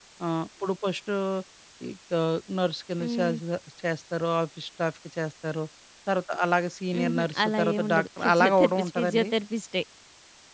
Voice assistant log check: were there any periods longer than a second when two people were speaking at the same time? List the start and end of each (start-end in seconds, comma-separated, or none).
7.0-9.3